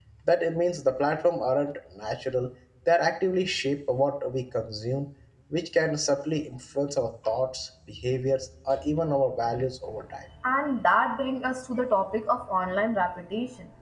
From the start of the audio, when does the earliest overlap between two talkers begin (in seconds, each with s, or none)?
none